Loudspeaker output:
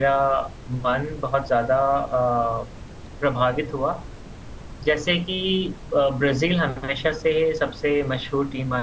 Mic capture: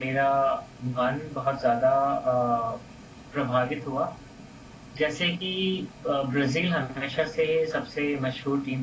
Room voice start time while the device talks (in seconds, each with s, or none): none